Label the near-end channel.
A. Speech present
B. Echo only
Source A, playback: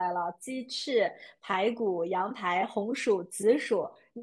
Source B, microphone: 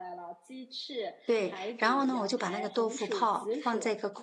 A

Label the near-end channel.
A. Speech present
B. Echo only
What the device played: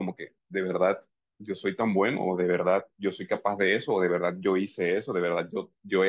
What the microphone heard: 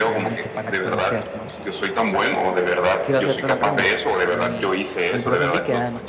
A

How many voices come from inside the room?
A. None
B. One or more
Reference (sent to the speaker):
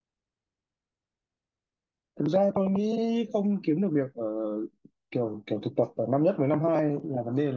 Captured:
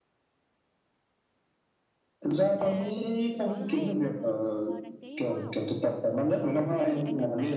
B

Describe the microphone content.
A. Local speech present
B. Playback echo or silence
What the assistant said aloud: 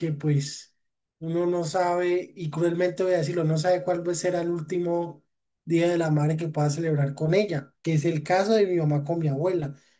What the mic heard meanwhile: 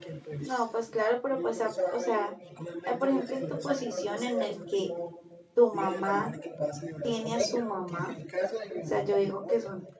A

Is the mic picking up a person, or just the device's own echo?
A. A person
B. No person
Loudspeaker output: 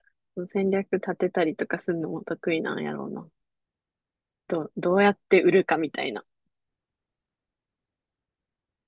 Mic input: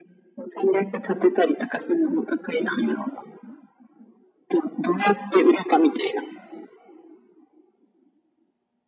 B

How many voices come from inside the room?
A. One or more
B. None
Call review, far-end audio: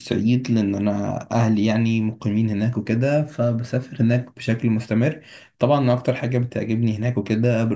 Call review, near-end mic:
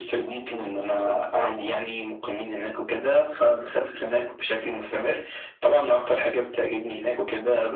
B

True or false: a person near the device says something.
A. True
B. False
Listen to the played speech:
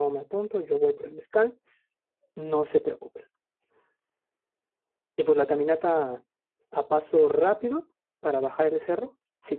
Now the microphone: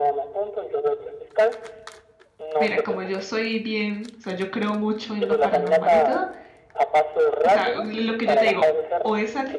A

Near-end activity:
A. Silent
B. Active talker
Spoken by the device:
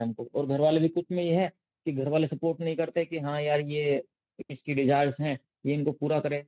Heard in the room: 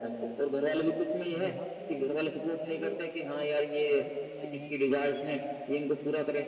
B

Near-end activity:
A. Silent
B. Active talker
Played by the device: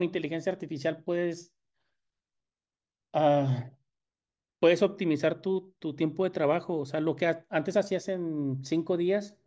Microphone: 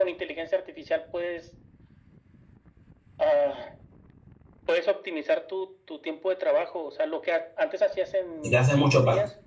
B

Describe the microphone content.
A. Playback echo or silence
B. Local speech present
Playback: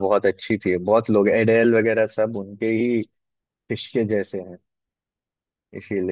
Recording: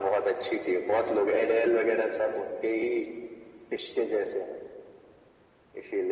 A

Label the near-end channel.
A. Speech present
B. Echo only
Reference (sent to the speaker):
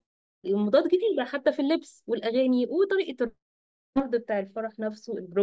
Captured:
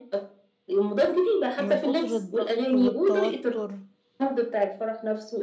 A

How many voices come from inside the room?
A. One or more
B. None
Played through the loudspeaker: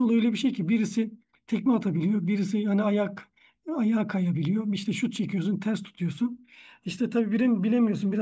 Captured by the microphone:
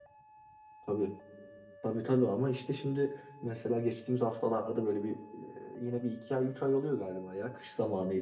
A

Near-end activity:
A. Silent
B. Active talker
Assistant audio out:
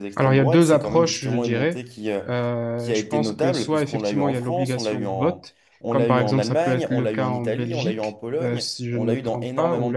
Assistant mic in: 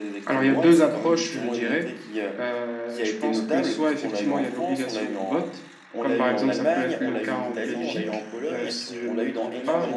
B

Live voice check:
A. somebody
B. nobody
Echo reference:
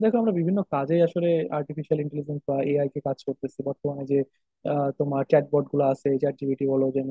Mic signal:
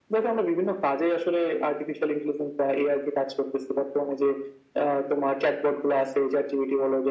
B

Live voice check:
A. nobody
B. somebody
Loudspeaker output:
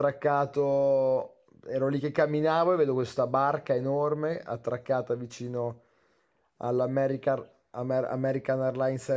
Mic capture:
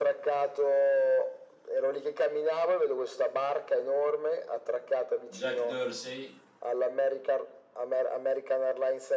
B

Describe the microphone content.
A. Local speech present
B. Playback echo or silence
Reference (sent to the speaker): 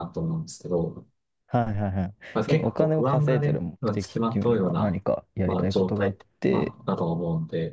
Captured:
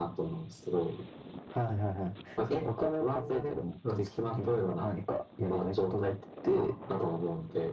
B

